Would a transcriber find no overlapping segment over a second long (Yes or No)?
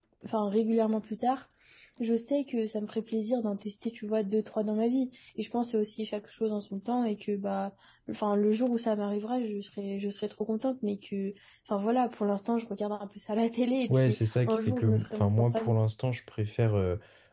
No